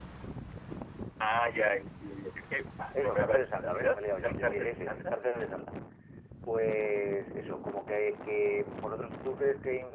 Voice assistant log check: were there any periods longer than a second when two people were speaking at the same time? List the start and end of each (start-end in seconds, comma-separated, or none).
3.0-5.1